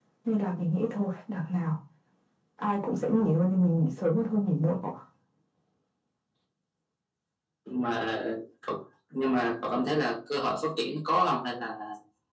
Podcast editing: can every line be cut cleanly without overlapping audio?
Yes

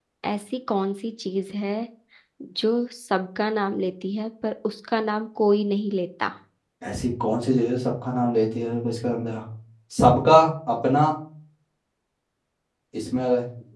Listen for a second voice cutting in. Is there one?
No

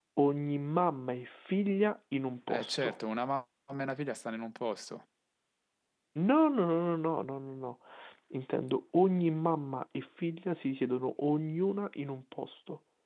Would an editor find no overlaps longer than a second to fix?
Yes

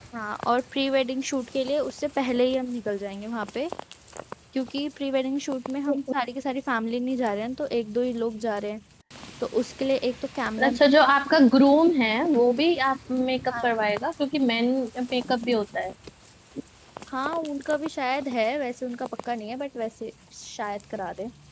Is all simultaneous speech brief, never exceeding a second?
Yes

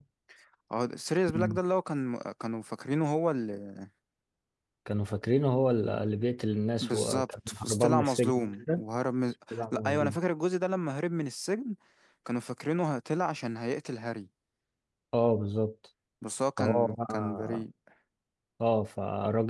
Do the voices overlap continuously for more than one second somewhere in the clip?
Yes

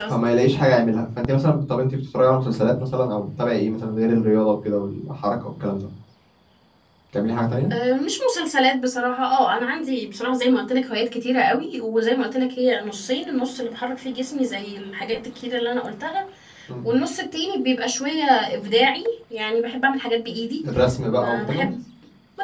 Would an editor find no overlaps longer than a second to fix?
Yes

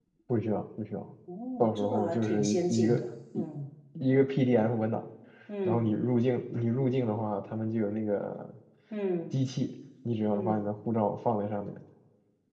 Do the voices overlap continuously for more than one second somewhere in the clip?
Yes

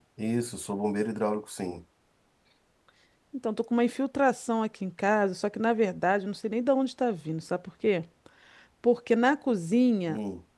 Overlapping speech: No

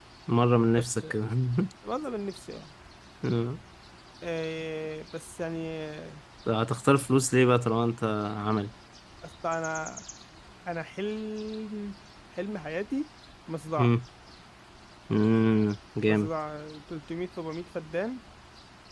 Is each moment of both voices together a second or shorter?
Yes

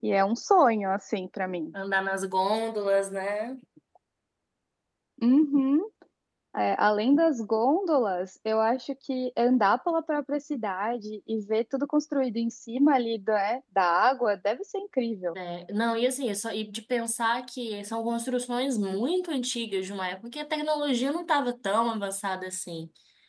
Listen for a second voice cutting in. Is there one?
No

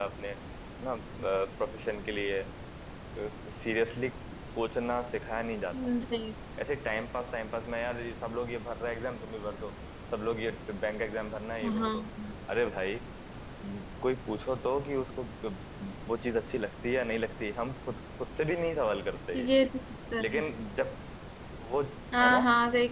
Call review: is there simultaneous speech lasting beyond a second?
No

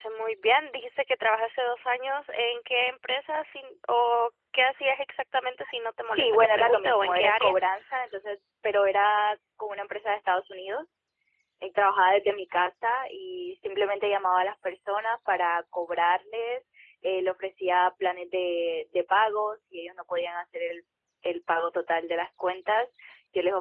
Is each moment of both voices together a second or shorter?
No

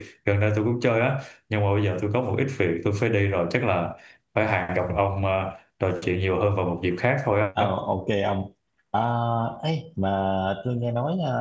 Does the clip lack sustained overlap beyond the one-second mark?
Yes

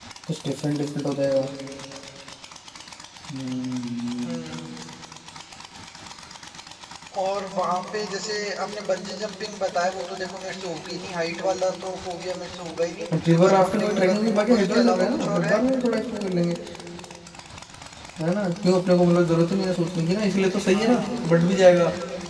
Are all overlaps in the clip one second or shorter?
No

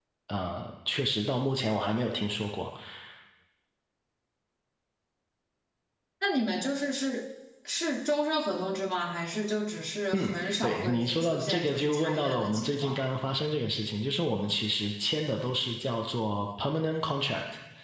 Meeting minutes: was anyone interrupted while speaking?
Yes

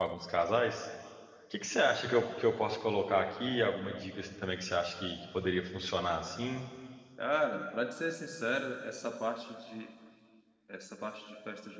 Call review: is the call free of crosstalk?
Yes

